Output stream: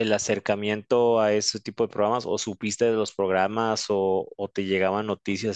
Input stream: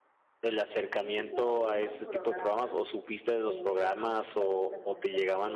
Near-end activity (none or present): present